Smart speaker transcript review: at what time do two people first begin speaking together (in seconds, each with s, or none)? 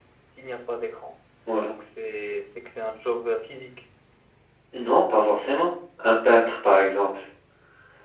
none